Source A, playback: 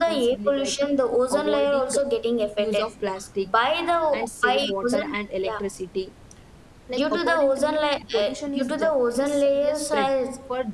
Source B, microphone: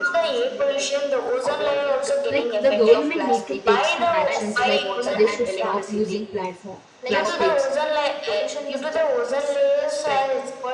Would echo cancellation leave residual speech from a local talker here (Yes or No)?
Yes